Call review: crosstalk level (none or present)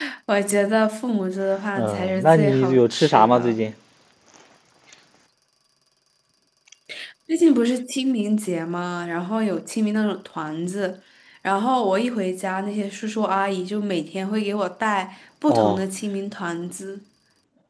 present